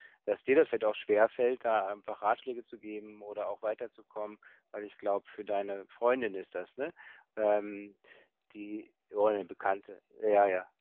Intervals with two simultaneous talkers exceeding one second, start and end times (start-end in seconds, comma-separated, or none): none